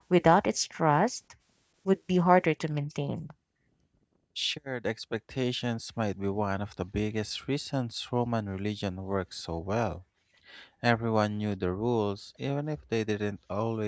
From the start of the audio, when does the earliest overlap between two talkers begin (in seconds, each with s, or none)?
none